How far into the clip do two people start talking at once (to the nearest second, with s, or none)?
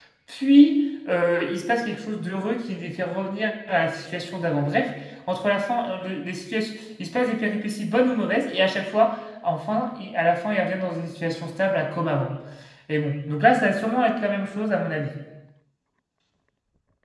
none